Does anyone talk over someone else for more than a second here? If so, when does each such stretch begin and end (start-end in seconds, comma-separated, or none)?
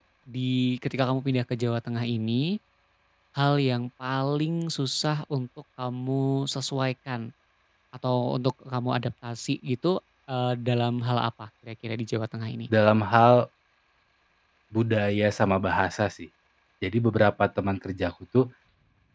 none